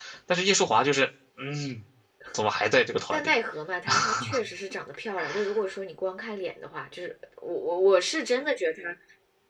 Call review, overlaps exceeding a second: none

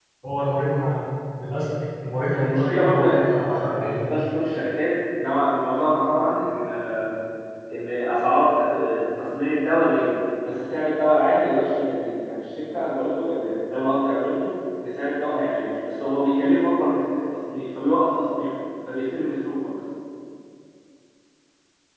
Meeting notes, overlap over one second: present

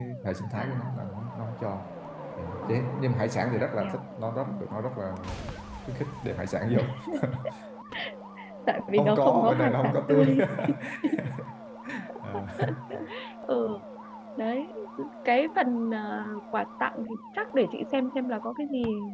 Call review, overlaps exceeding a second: present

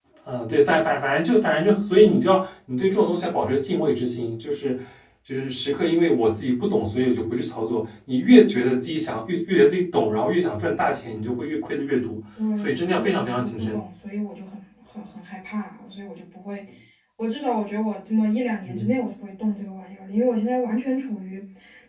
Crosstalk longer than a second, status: present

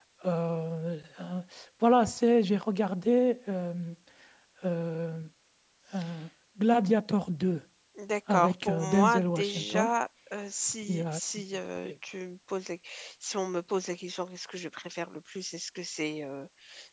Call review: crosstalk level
present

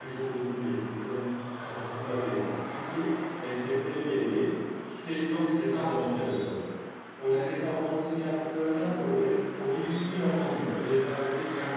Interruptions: present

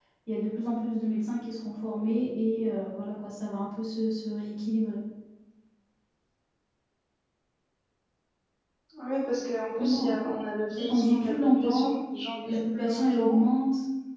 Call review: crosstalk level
present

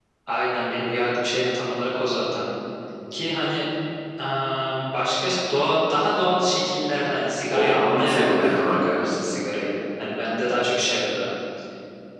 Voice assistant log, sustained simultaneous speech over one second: present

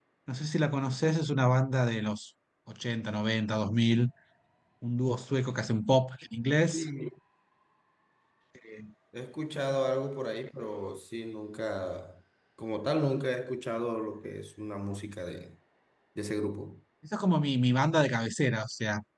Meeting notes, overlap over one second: none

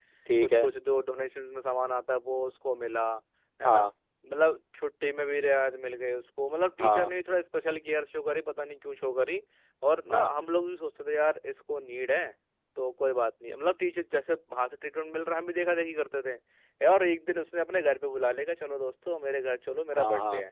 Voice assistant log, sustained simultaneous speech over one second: none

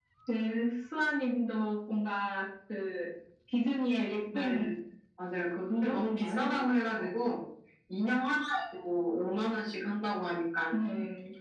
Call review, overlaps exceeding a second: present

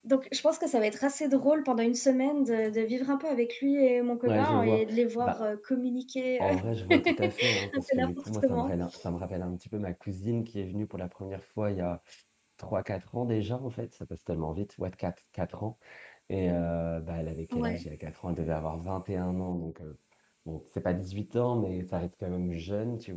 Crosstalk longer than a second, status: present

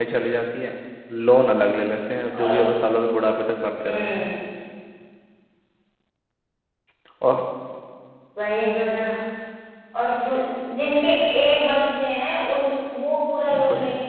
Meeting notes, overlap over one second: none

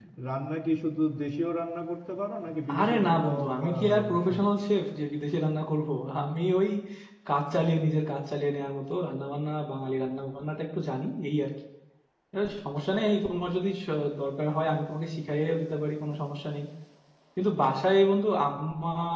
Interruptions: present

